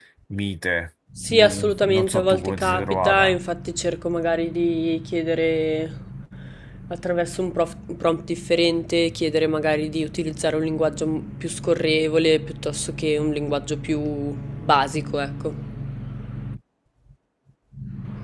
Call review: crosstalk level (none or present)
present